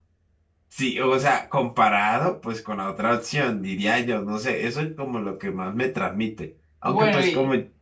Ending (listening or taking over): listening